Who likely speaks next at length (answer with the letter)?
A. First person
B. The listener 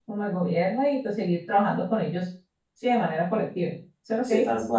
B